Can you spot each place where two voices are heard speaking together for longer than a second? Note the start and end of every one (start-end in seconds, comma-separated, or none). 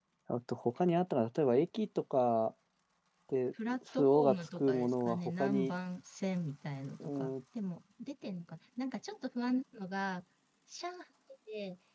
3.7-5.7